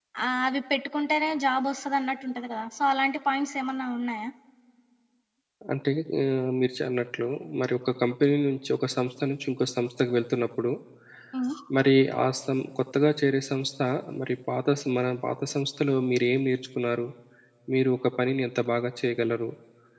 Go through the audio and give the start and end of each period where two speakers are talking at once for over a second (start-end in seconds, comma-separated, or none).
none